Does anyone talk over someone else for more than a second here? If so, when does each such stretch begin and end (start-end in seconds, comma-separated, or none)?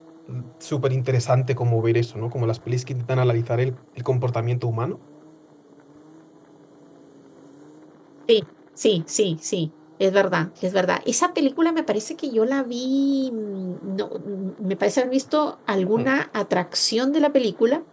none